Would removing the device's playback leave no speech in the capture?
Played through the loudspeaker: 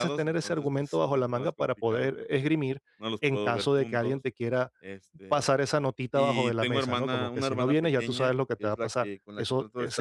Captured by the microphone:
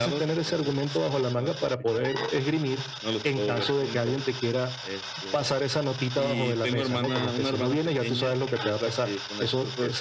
Yes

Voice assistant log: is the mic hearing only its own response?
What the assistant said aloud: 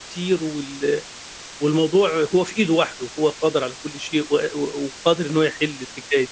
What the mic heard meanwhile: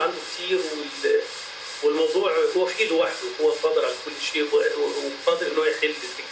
Yes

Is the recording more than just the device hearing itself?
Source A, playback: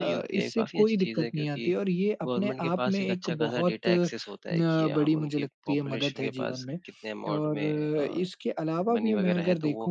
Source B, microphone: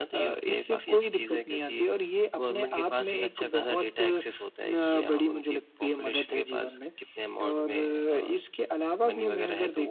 No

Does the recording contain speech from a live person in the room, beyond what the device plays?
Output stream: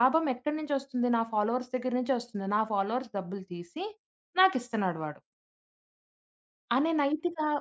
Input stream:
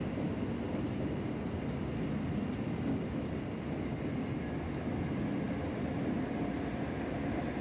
No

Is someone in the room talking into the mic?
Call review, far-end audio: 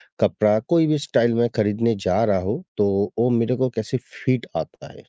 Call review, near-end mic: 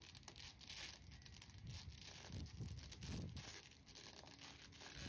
No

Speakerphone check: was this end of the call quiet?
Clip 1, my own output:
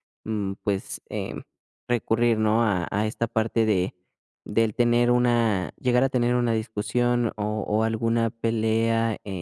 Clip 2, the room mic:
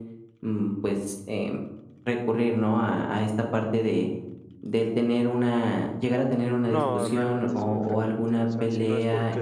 No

